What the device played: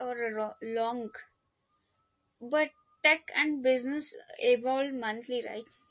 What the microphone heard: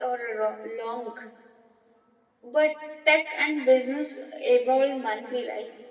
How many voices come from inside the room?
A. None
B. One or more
A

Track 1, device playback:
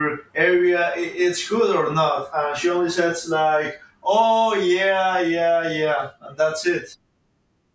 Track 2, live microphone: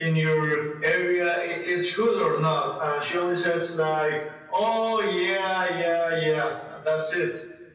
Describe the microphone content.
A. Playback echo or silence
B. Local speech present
A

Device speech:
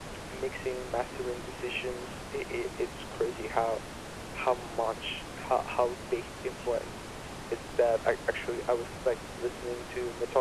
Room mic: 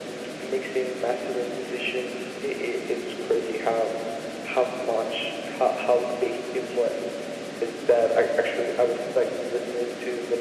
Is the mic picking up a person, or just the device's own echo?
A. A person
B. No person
B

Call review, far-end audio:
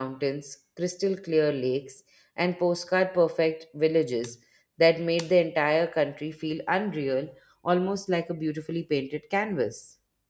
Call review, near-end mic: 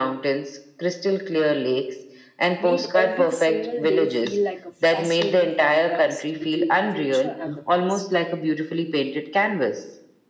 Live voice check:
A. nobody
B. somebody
B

